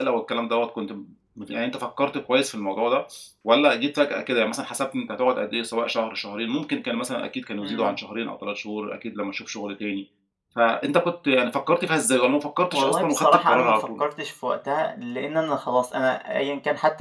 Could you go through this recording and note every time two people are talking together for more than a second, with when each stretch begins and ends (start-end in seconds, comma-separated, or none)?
12.7-14.0